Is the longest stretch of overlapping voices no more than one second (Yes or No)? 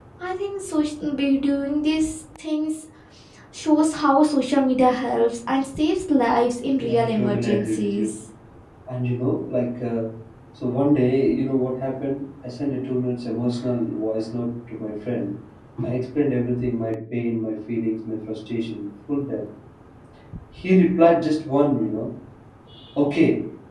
No